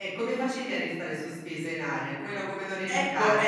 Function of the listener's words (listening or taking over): taking over